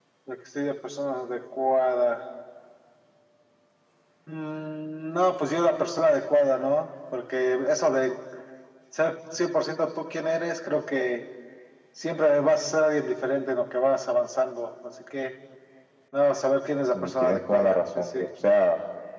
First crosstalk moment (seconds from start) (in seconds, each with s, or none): 16.9 s